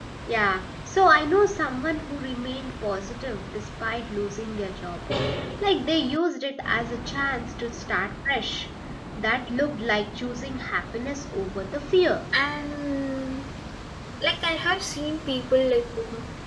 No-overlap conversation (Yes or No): Yes